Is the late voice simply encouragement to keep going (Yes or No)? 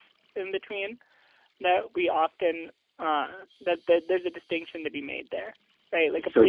Yes